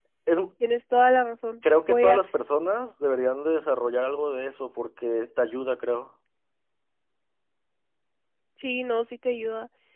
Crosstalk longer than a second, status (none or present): none